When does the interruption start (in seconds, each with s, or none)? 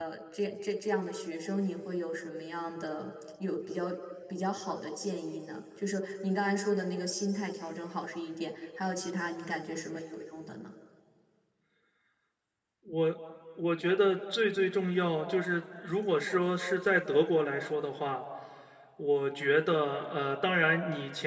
none